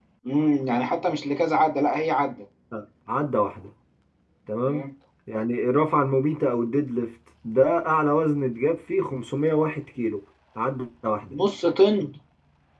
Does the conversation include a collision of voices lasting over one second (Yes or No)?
No